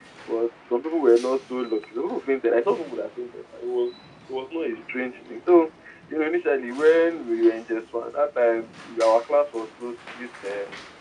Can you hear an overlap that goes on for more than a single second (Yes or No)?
No